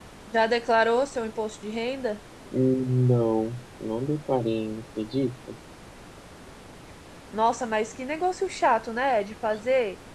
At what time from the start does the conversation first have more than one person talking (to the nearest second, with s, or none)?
none